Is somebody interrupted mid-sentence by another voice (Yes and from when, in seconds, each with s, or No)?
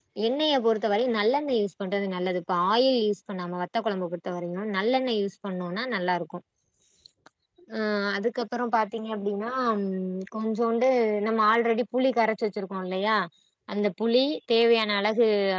No